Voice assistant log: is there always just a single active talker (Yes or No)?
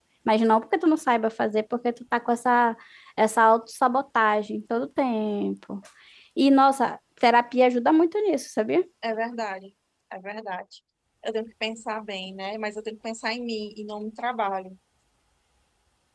Yes